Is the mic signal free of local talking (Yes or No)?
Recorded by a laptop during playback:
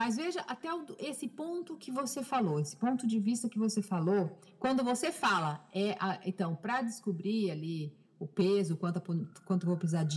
Yes